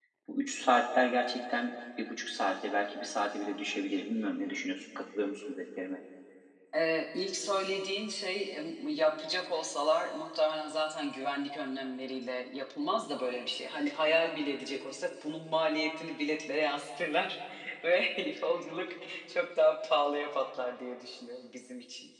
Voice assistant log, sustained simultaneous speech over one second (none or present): none